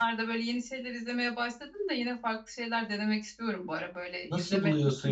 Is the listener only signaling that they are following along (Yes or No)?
No